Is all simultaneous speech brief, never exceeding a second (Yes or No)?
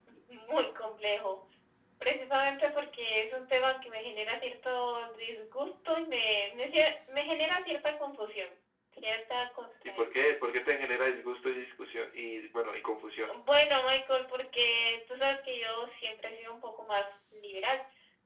Yes